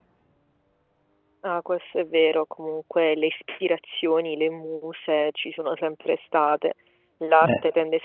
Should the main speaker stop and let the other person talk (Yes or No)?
No